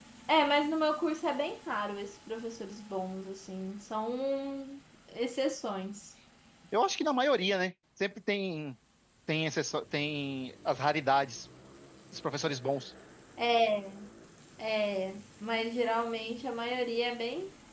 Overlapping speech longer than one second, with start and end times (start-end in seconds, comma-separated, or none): none